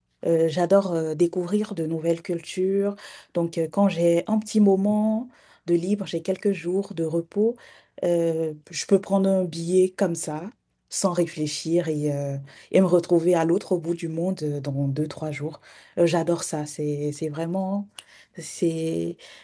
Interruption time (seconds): none

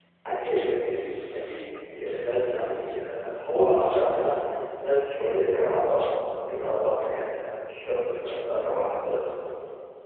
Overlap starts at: none

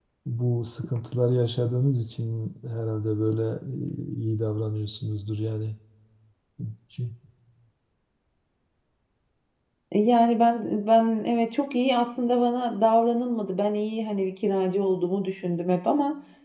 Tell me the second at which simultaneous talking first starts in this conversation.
none

